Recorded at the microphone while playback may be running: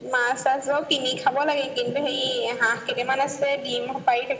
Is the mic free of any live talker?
Yes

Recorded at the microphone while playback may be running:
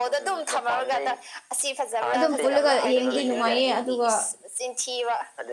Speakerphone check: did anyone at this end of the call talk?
Yes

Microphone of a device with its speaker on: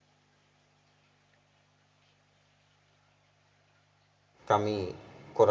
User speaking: Yes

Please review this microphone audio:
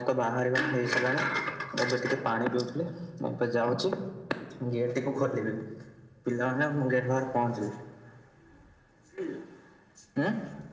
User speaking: No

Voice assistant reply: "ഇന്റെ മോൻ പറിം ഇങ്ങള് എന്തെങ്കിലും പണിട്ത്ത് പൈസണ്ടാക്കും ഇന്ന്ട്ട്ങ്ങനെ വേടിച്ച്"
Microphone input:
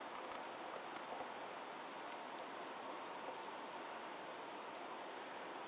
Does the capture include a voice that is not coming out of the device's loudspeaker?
No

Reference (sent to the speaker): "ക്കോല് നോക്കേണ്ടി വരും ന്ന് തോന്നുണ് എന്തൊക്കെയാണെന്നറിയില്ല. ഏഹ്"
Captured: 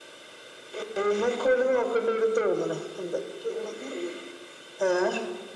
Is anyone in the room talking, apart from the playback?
No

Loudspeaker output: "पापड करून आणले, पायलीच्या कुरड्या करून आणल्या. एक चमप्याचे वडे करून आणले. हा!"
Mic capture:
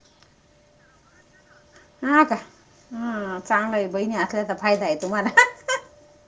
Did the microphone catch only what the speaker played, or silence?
No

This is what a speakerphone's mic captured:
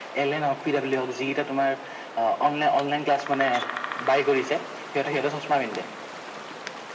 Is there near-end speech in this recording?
No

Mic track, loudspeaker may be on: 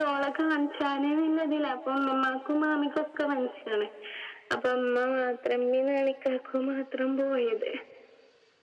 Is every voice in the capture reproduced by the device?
Yes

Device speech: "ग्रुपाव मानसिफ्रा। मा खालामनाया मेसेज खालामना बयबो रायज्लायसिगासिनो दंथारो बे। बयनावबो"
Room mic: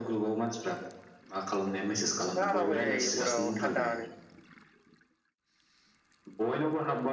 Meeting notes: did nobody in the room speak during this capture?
No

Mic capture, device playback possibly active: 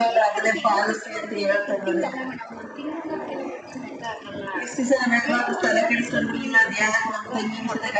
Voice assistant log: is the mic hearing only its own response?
Yes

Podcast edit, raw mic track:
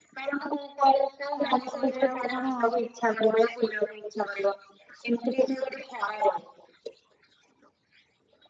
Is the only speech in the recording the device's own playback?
No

